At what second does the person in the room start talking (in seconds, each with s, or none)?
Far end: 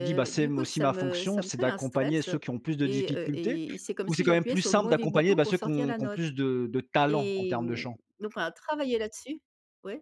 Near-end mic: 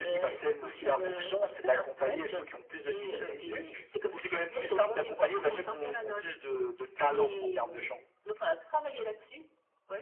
none